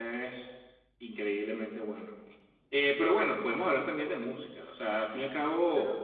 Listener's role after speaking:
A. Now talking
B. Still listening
A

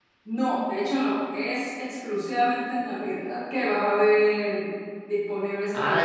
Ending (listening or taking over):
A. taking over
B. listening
A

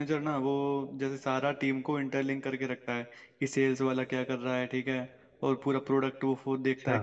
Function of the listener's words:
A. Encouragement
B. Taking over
A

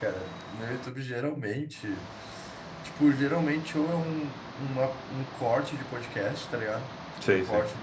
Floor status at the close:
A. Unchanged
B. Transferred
A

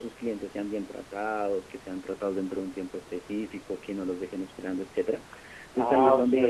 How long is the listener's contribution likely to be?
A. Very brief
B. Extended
B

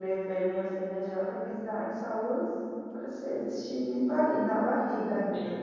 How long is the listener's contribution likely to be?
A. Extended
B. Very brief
A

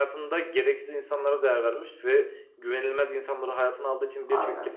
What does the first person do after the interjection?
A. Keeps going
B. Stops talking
A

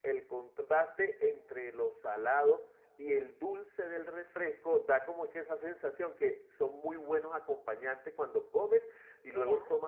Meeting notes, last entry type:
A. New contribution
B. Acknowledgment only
B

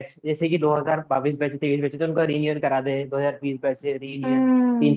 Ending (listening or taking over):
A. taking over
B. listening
A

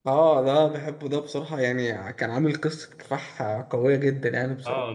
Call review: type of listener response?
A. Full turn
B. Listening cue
A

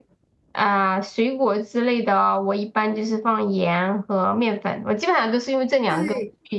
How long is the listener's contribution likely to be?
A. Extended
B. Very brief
A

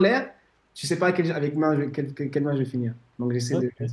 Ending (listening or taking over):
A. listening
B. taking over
A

